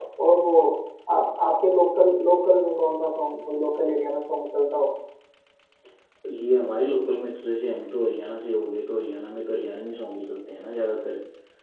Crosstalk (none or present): none